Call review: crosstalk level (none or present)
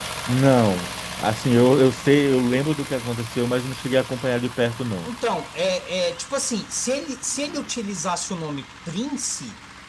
none